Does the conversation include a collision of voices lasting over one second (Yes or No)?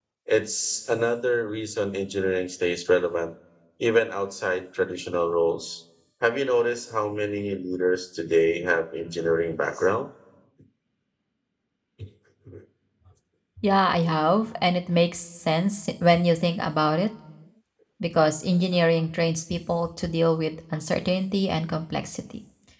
No